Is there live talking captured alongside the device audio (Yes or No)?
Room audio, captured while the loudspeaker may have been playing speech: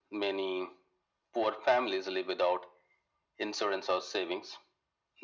No